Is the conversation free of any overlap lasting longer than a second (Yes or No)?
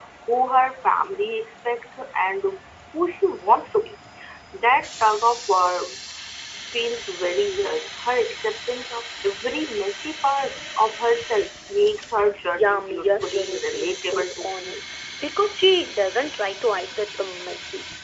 No